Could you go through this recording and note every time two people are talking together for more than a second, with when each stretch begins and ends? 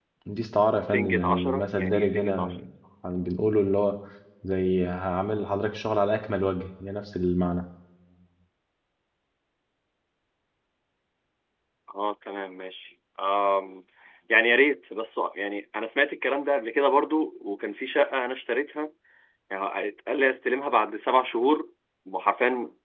0.8-2.6

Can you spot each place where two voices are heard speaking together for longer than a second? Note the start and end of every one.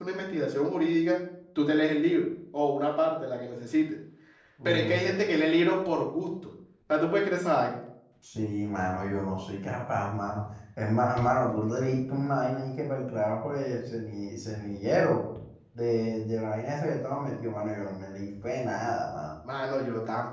none

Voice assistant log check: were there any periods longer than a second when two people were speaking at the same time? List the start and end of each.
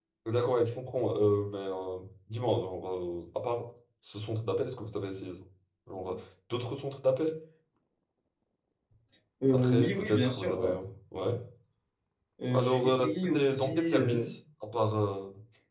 9.5-10.8, 12.5-14.3

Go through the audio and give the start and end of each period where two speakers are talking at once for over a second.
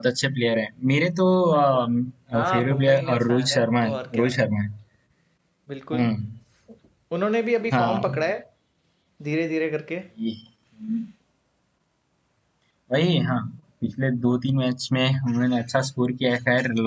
2.3-4.3

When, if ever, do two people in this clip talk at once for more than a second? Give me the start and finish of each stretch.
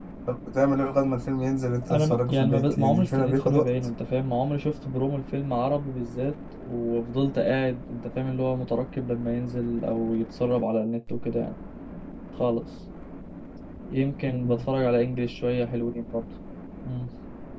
1.9-3.6

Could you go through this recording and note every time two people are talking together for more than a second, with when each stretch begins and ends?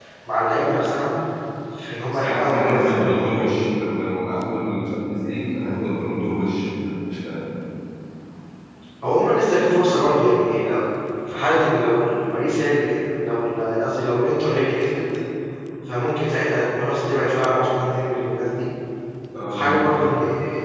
2.1-3.6

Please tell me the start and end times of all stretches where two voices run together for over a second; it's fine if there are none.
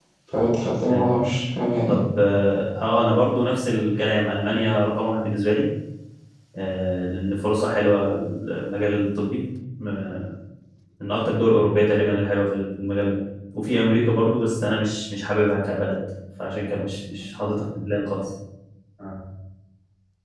none

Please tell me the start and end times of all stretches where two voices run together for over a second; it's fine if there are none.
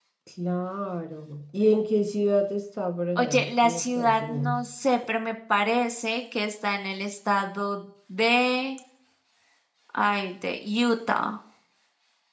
3.2-4.5

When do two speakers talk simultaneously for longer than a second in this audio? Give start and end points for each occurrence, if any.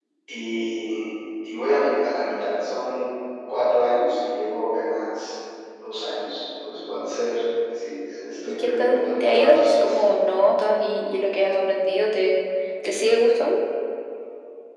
8.6-10.0

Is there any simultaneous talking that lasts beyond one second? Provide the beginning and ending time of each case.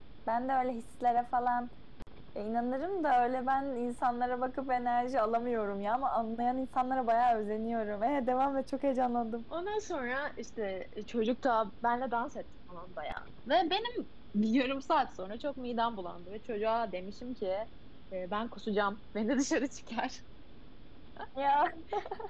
none

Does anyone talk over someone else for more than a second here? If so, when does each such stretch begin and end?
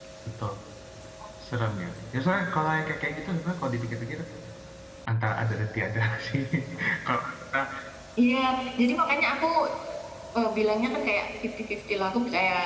none

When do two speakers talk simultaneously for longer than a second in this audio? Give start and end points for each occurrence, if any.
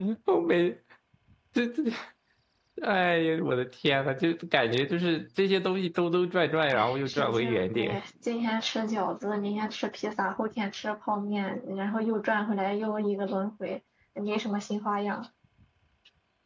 6.7-8.0

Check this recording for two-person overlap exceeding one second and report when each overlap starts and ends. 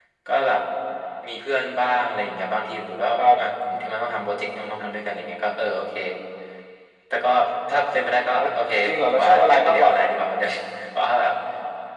8.9-10.1

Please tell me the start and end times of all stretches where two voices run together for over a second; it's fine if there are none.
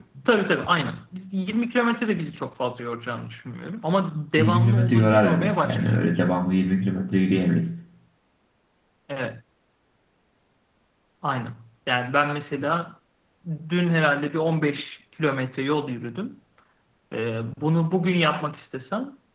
4.4-6.0

